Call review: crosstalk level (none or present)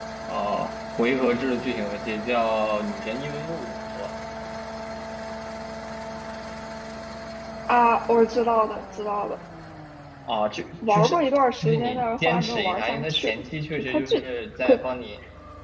present